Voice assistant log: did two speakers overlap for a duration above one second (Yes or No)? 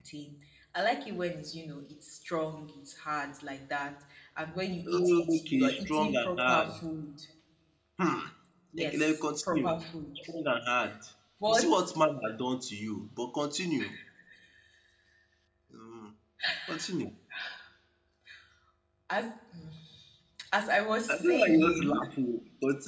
Yes